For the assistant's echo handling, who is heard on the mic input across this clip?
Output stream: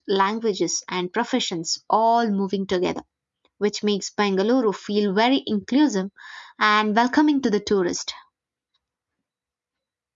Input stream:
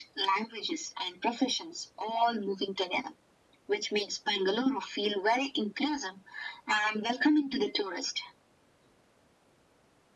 echo only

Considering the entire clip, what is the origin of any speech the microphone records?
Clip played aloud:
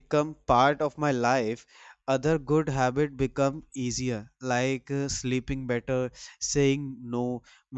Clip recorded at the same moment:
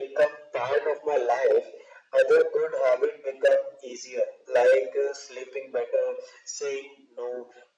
echo only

